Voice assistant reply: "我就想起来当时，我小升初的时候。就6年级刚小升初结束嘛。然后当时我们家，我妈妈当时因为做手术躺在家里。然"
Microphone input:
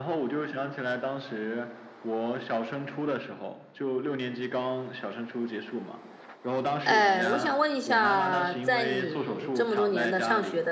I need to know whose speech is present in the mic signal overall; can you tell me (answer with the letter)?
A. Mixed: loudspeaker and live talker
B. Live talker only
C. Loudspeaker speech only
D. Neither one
A